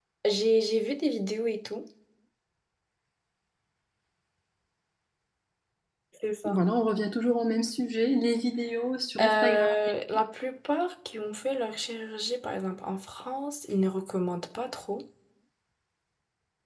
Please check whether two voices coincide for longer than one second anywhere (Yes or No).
No